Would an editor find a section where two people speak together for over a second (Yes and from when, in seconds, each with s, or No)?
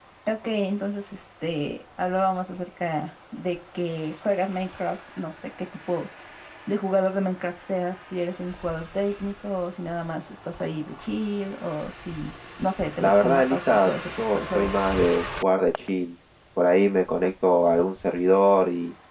Yes, from 13.0 s